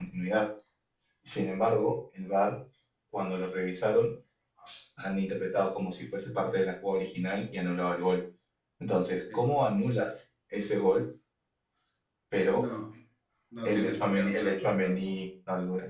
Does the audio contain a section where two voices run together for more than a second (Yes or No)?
Yes